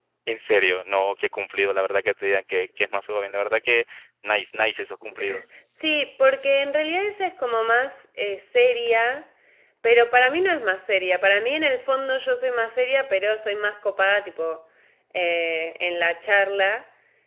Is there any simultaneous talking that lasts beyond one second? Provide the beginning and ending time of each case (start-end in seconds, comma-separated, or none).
none